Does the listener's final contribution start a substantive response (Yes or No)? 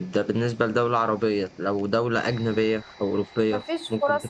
Yes